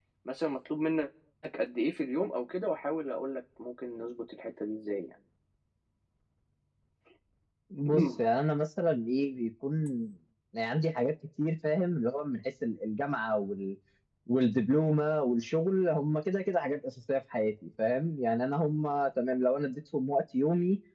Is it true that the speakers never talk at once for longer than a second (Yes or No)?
Yes